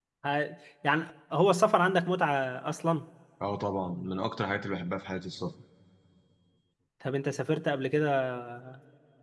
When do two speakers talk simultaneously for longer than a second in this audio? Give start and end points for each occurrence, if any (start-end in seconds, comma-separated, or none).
none